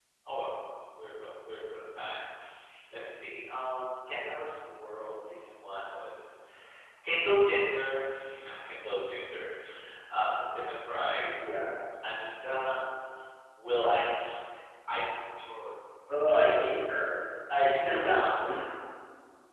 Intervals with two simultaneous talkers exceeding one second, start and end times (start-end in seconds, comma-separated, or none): none